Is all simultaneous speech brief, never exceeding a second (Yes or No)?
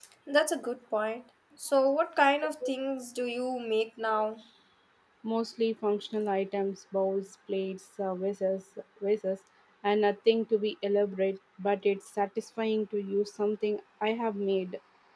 Yes